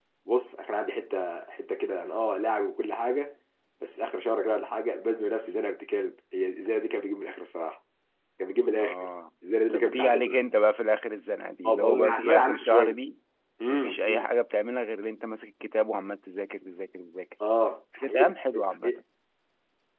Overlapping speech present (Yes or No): Yes